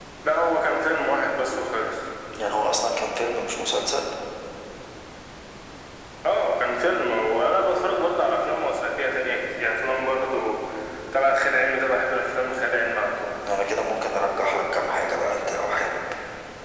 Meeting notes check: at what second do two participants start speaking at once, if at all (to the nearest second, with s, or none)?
none